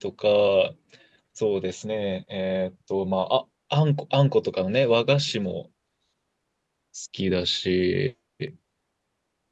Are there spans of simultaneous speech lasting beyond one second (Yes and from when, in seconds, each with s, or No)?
No